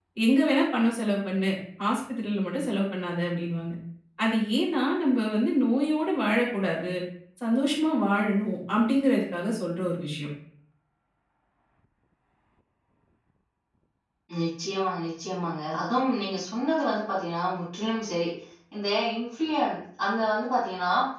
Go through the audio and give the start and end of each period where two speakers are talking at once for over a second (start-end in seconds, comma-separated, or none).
none